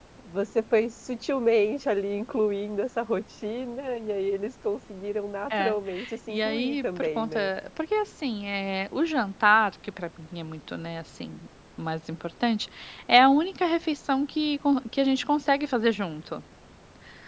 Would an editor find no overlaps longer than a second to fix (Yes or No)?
No